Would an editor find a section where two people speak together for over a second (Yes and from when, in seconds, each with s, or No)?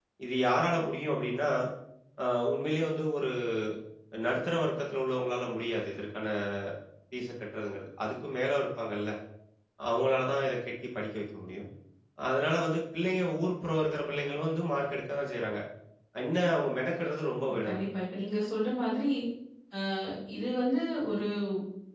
No